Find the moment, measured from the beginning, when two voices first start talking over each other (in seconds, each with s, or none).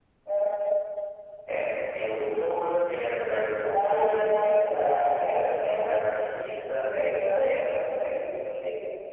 3.6 s